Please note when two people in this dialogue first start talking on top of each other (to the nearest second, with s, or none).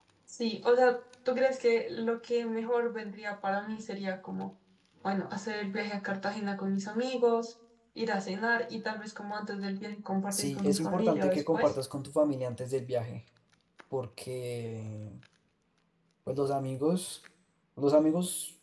10 s